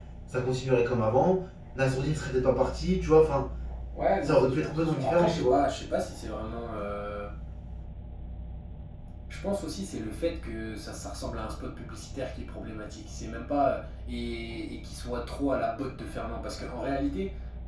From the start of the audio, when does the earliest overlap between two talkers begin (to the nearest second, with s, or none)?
4 s